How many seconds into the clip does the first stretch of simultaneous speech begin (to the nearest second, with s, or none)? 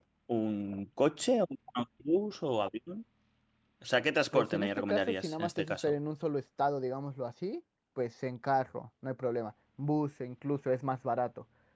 4 s